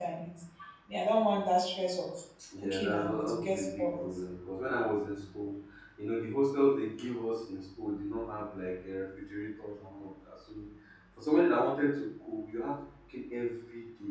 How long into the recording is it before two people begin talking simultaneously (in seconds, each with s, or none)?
2.4 s